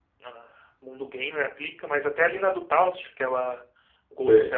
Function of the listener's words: listening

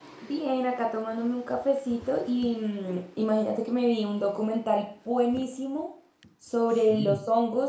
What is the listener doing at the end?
listening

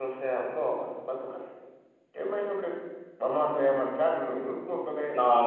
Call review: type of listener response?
taking over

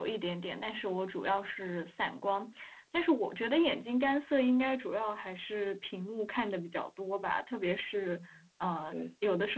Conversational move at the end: listening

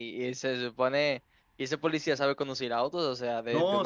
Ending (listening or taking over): taking over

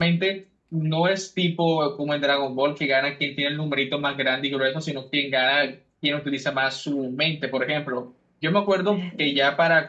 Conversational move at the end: listening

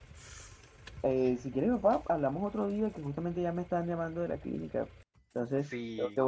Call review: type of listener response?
taking over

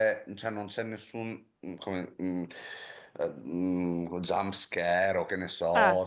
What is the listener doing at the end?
listening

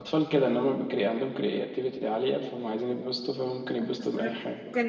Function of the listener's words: taking over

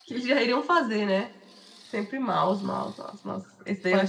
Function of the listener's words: taking over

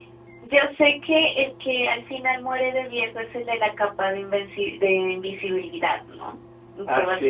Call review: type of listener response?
listening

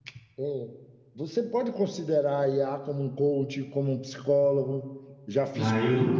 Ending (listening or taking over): taking over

